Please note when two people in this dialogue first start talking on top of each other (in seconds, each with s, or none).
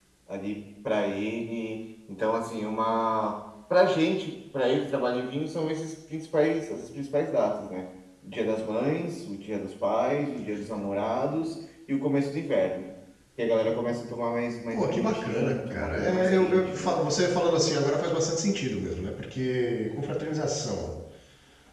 14.7 s